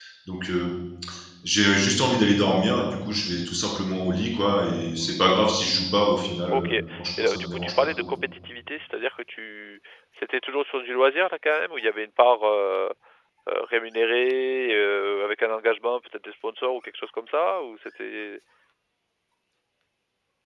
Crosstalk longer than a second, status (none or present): present